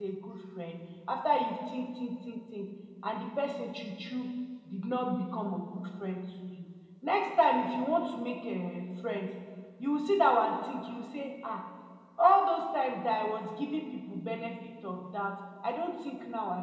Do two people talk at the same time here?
No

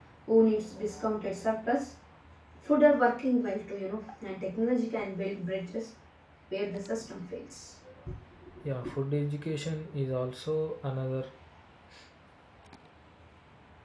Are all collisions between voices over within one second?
Yes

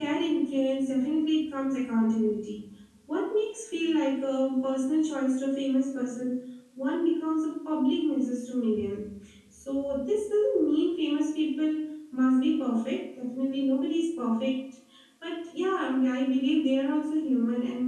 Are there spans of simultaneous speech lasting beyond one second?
No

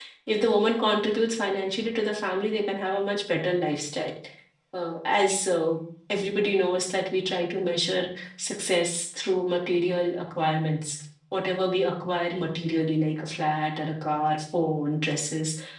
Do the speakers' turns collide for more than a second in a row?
No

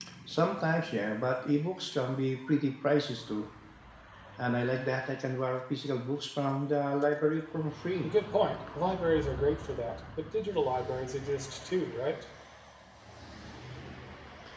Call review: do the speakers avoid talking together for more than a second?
Yes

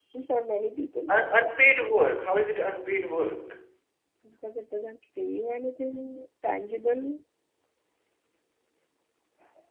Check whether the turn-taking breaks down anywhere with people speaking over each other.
No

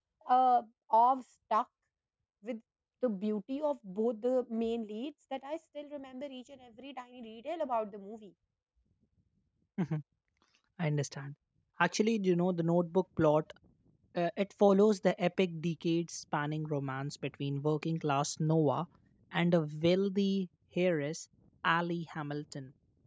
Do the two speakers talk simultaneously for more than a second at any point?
No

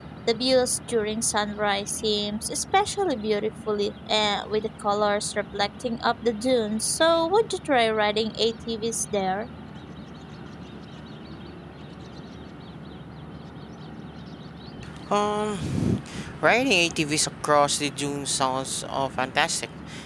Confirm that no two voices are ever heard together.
Yes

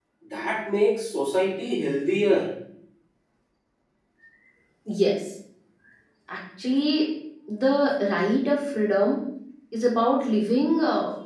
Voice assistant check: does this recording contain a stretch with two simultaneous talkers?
No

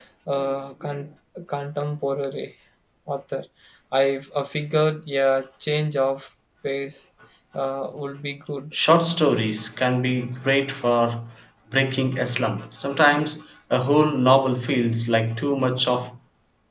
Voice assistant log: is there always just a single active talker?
Yes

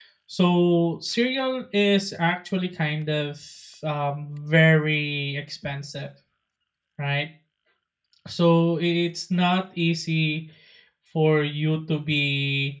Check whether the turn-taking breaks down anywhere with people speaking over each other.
No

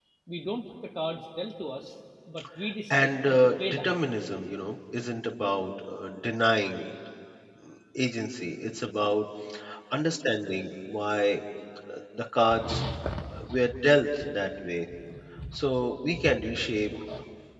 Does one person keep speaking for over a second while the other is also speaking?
Yes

